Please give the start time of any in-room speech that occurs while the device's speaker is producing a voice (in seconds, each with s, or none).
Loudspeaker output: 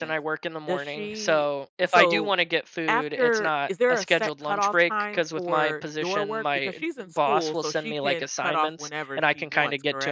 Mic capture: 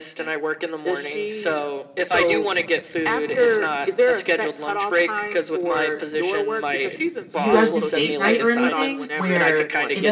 7.3 s